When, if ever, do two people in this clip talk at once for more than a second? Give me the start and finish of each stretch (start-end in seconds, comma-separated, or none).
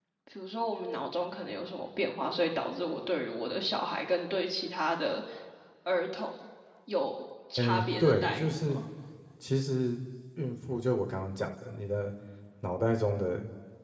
7.6-8.8